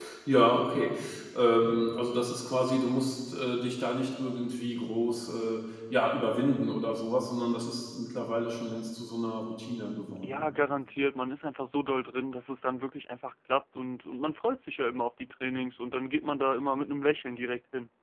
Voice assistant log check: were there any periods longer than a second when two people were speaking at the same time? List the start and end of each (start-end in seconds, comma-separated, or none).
none